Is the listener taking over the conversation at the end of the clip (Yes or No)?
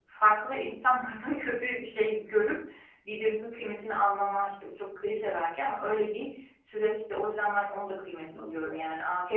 No